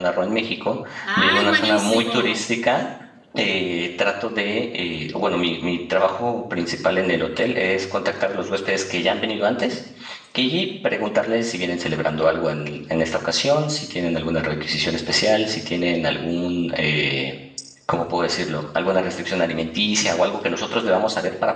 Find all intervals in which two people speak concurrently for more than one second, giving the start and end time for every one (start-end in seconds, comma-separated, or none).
1.2-2.4